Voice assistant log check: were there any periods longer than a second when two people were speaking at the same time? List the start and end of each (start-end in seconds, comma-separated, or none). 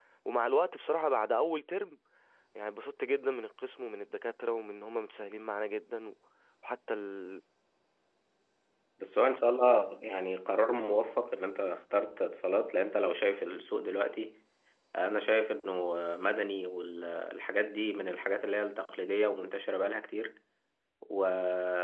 none